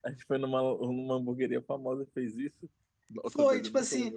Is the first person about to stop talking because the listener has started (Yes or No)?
Yes